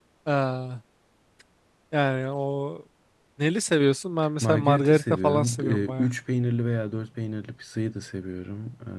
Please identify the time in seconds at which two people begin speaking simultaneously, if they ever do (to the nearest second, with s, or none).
4 s